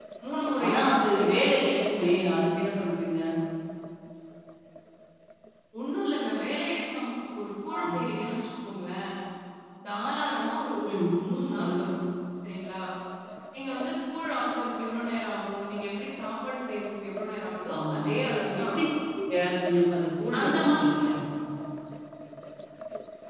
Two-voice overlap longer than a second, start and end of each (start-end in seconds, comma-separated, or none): 0.6-2.0